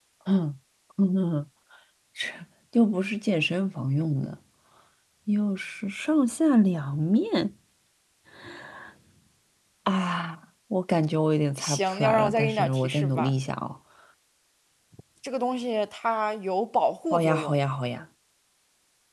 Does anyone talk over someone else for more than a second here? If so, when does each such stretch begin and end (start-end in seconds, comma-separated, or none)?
11.6-13.3